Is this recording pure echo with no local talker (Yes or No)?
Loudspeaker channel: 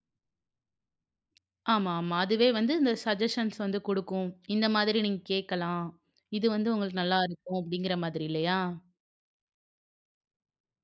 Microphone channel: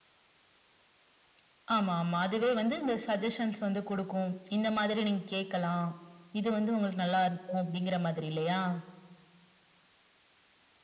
Yes